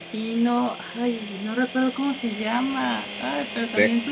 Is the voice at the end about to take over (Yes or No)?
No